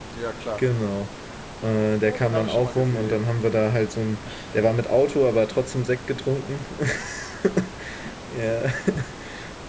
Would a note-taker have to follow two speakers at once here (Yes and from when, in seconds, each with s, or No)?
Yes, from 2.0 s